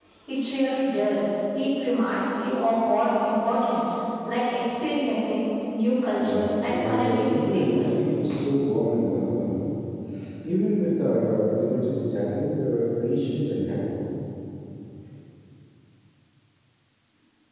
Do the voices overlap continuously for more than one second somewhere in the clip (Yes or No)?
Yes